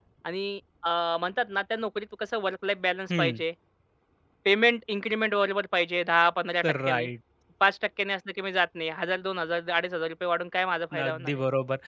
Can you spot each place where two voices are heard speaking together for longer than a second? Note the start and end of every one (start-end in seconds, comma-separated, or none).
none